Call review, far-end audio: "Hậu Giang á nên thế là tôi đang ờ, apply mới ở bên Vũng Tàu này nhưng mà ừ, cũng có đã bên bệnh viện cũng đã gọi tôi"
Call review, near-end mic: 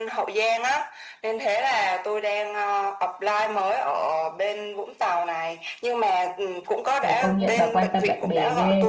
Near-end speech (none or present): present